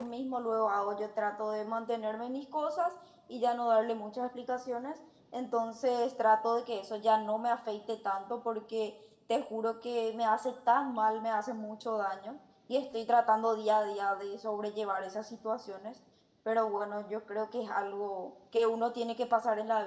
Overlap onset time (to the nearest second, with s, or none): none